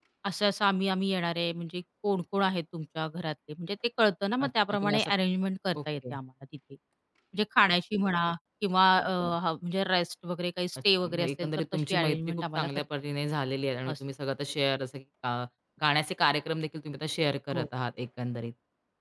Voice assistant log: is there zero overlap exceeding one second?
No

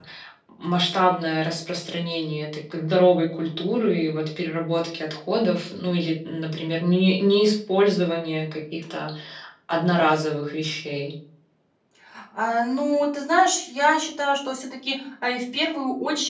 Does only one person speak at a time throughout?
Yes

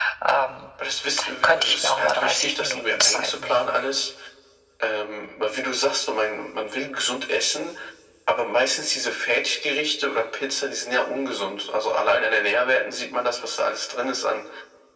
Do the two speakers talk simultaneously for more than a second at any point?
Yes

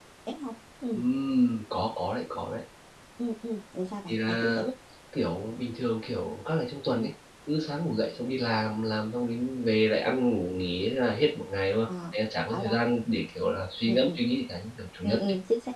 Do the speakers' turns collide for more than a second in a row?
No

